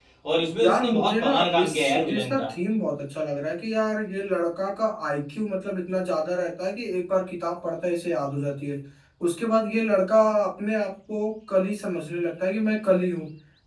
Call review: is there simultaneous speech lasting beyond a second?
Yes, from 0.6 s

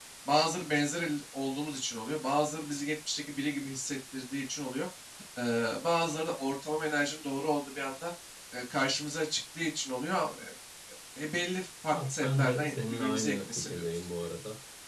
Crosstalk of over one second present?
Yes, from 11.9 s

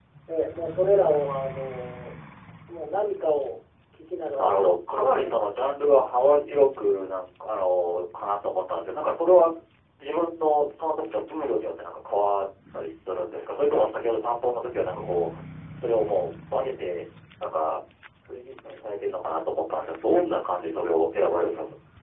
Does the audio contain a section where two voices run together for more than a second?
Yes, from 4.4 s

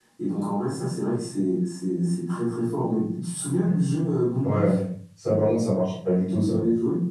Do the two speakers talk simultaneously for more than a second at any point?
No

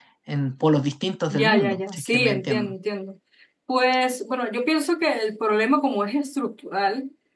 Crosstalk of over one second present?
Yes, from 1.3 s

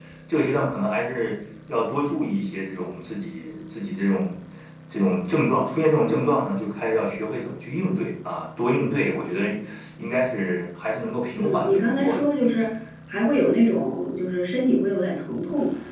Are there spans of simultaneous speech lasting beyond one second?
Yes, from 11.4 s

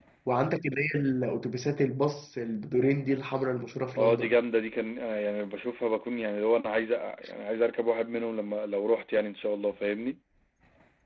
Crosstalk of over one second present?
No

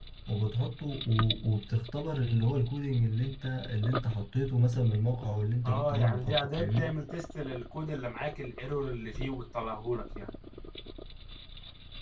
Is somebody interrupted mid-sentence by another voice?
Yes, from 5.6 s

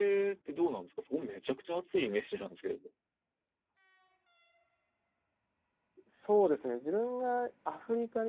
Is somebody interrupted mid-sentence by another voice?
No

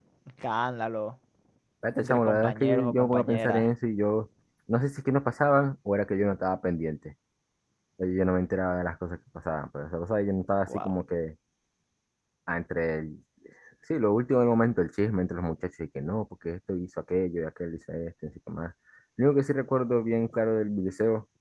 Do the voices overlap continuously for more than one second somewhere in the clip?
Yes, from 2.0 s

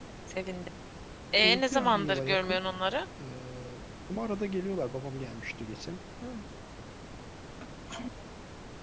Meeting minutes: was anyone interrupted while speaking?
Yes, from 1.3 s

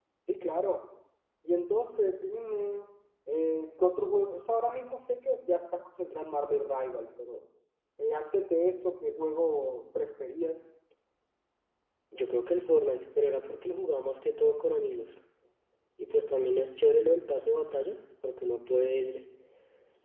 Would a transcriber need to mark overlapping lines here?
No

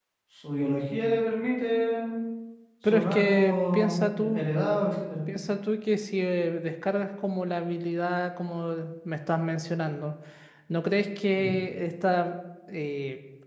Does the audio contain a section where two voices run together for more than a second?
Yes, from 2.9 s

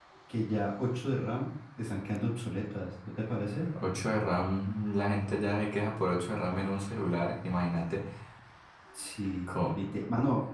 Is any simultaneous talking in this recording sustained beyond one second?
No

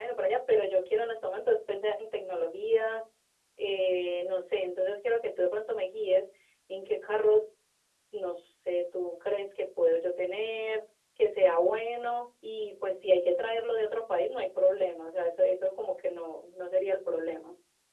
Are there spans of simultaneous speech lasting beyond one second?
No

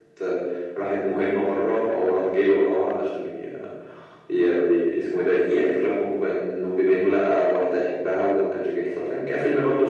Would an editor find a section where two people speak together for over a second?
No

